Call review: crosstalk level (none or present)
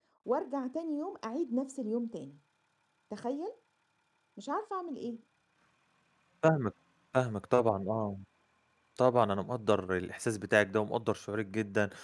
none